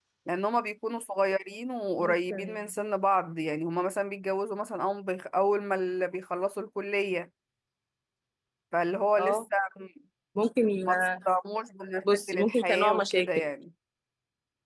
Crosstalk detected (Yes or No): Yes